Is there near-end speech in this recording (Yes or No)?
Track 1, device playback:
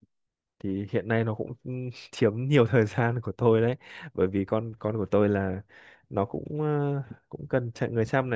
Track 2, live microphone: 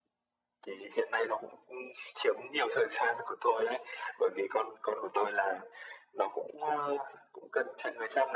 No